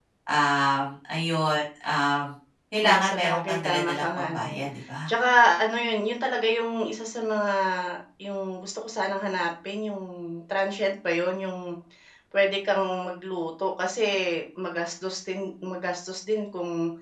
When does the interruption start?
2.8 s

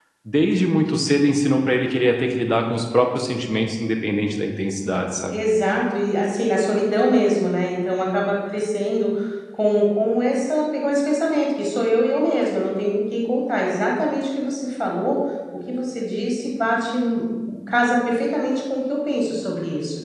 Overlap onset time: none

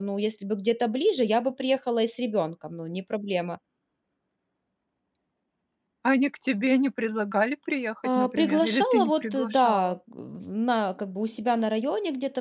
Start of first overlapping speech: 8.0 s

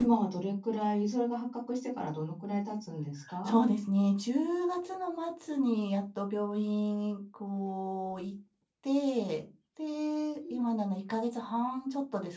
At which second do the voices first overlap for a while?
none

